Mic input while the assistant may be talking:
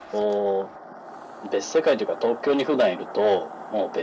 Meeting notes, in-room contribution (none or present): none